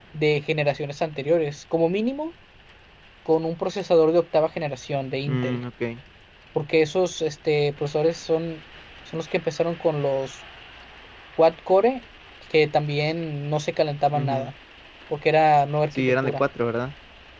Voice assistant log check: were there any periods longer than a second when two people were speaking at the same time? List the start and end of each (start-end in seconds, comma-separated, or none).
none